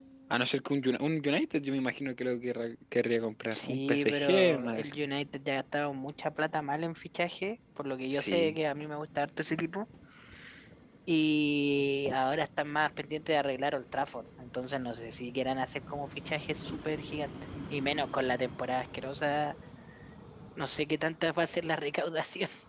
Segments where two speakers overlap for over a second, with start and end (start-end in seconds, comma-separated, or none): 3.5-5.0